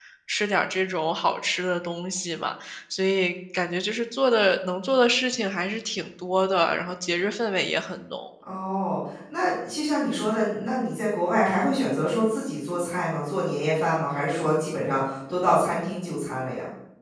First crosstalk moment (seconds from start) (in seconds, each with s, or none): none